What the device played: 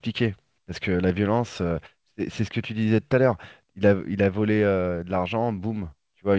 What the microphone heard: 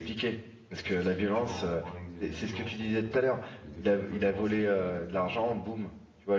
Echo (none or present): present